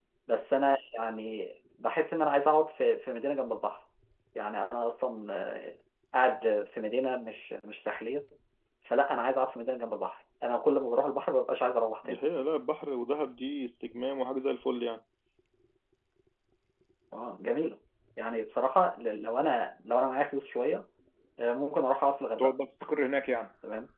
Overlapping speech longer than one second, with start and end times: none

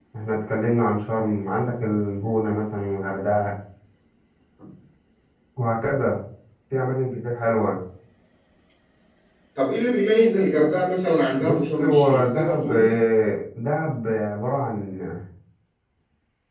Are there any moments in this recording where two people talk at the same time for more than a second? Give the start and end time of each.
11.4-13.0

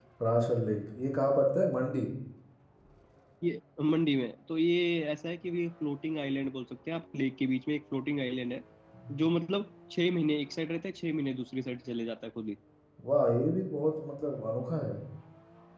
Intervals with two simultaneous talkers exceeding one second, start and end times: none

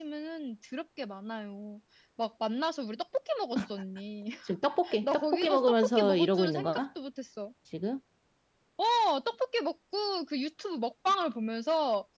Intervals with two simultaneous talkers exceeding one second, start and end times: 5.0-6.8

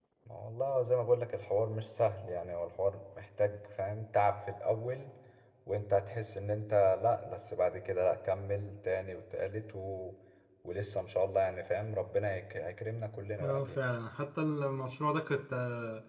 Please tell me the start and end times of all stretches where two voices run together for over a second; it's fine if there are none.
none

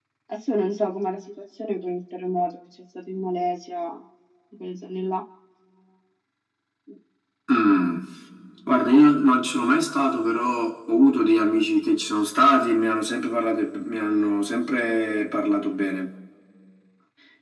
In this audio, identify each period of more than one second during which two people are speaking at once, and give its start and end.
none

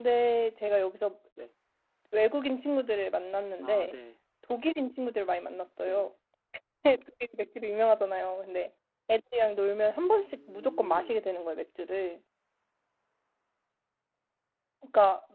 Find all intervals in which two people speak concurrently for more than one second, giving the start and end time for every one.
9.9-11.2

